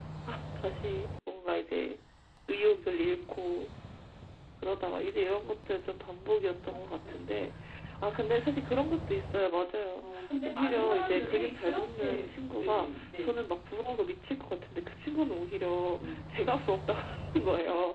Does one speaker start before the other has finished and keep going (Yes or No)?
Yes